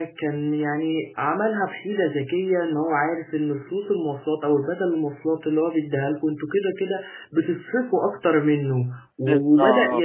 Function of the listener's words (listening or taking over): listening